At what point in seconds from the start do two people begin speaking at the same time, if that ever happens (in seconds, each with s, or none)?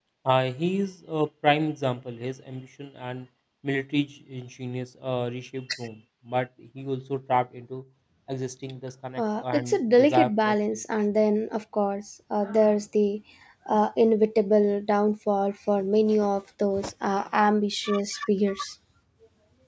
9.2 s